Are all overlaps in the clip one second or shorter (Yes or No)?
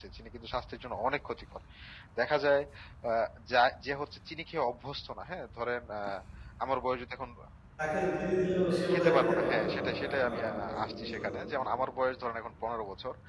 No